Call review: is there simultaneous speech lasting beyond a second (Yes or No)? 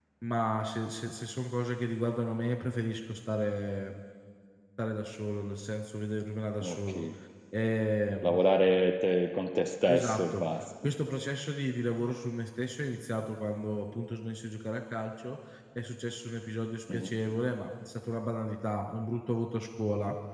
No